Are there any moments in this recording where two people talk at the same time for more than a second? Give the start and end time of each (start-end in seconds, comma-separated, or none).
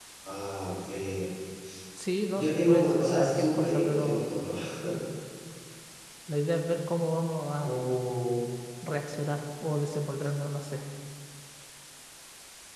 2.3-4.3